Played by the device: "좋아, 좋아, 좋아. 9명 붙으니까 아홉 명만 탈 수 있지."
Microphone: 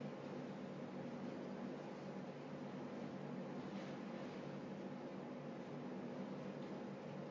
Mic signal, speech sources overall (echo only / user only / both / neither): neither